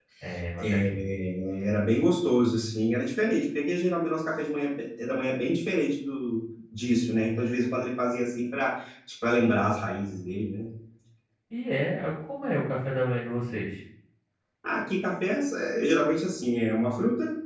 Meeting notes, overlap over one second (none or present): none